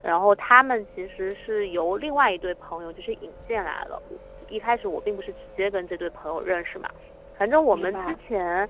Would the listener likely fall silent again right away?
Yes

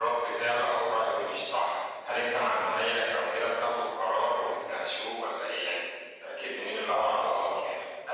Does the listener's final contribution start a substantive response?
Yes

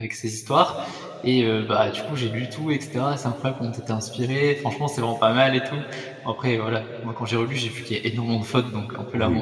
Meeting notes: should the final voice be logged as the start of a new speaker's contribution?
Yes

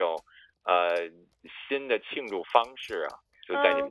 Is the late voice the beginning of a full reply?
Yes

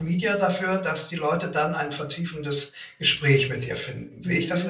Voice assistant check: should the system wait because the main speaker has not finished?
No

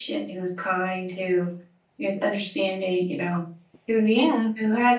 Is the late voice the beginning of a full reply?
No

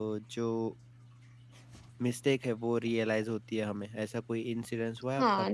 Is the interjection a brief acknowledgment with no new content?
No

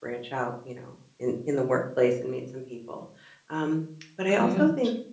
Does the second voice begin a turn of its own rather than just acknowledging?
No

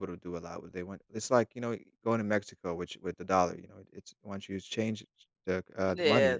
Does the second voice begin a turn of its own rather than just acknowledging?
Yes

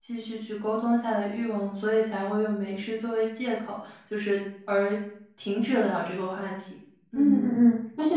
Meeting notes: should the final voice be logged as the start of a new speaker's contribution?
Yes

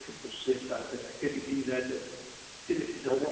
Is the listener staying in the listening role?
Yes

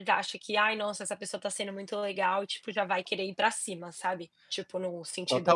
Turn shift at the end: Yes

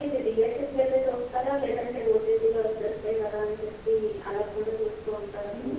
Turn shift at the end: Yes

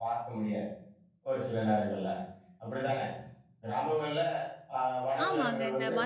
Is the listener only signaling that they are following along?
No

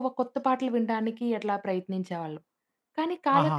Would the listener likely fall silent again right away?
Yes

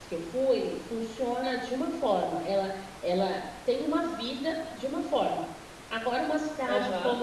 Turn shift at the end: No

